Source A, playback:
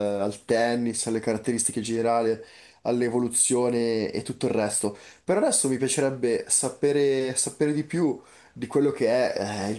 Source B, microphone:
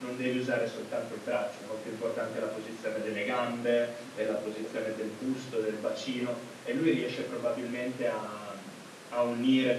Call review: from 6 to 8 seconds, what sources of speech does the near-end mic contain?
user only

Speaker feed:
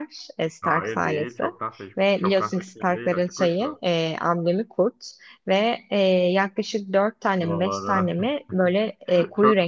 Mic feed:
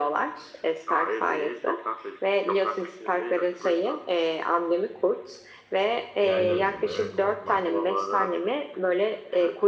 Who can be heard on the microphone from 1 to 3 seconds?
echo only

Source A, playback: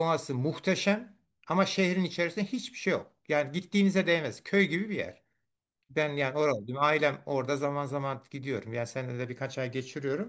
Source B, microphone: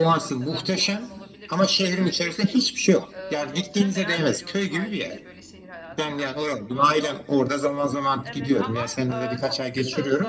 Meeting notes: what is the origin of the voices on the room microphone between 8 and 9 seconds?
both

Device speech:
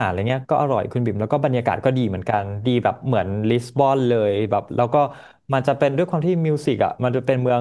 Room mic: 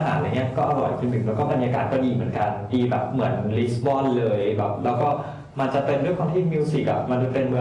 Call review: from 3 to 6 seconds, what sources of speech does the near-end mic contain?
echo only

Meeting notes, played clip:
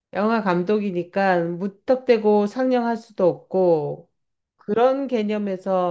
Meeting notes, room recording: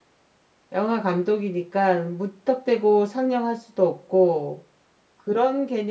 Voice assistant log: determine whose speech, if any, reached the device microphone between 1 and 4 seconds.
echo only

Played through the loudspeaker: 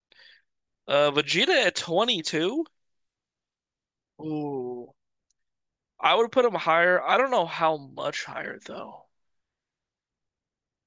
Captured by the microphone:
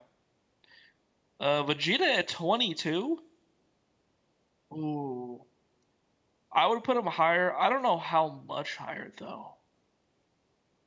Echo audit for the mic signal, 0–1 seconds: neither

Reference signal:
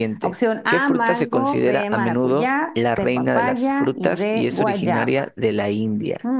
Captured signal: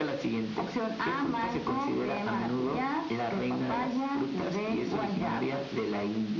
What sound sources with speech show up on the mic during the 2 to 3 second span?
echo only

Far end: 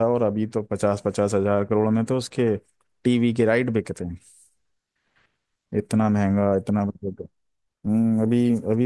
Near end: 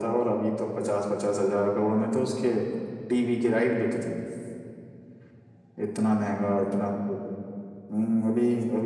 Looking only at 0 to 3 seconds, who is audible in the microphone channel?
echo only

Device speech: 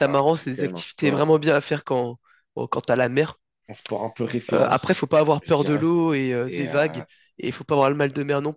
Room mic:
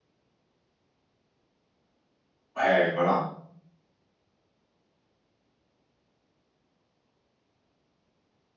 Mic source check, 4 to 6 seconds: neither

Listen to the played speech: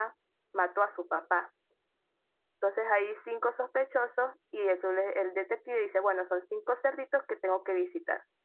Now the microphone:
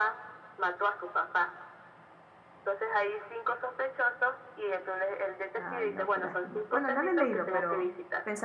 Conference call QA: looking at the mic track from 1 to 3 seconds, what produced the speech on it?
echo only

